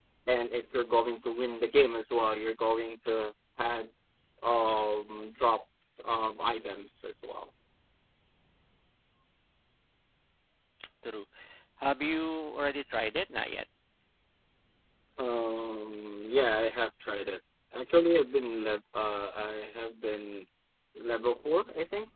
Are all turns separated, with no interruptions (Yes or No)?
Yes